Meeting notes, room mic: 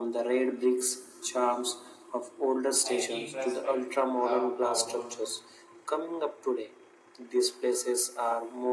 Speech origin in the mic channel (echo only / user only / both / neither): both